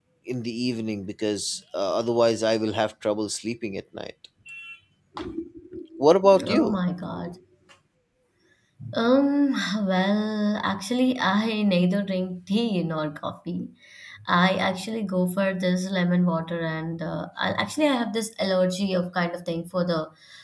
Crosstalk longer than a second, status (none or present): none